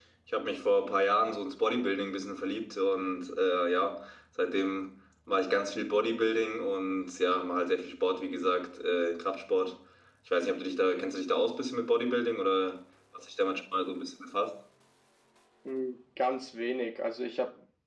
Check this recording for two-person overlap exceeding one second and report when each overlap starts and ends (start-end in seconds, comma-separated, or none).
none